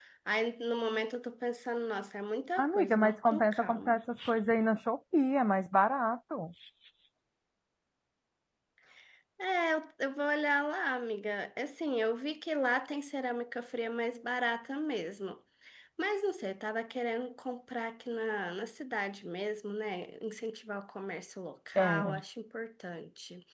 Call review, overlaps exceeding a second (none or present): present